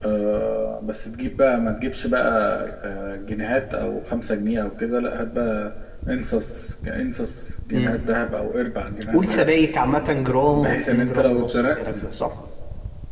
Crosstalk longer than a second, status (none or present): present